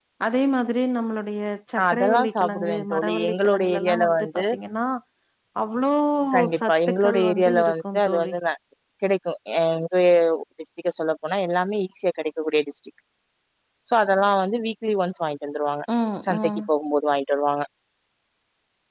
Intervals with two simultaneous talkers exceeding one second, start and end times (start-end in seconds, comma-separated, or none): 1.8-4.4, 6.6-8.3